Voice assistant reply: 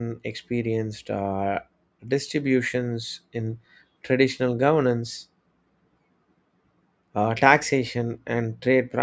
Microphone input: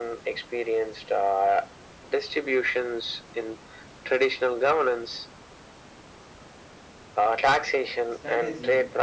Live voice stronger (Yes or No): No